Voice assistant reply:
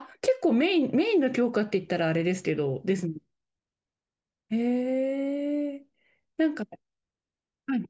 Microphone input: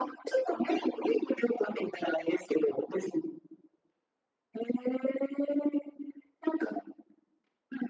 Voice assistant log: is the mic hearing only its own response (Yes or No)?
Yes